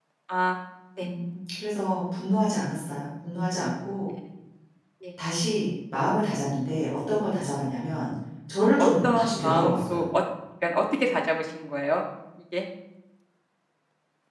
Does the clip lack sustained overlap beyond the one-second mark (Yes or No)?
No